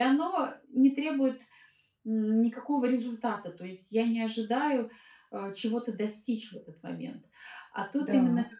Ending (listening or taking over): listening